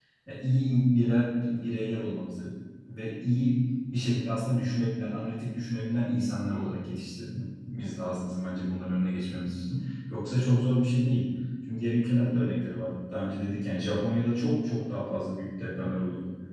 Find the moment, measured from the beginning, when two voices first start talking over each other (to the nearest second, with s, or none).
none